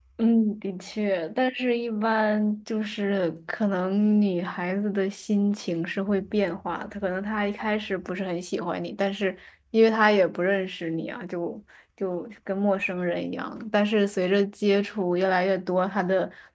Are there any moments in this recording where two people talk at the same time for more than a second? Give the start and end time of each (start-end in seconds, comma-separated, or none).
none